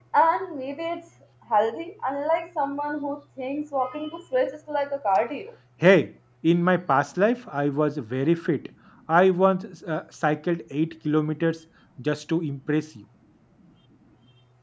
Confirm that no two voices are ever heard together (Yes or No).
Yes